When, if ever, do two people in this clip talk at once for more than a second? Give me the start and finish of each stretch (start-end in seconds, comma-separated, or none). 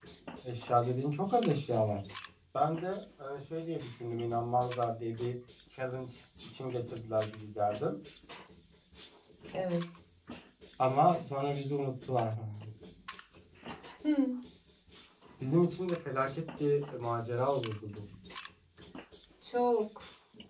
none